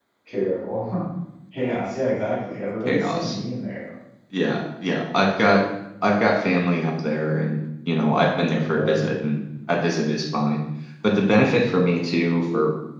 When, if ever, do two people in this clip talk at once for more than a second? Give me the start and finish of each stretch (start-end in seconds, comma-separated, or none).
none